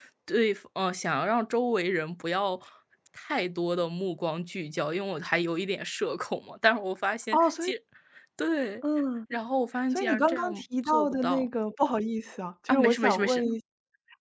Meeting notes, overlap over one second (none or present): present